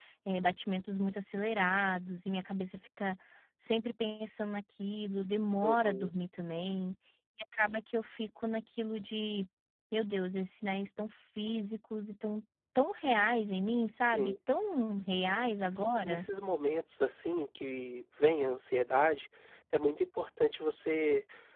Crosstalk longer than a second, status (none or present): none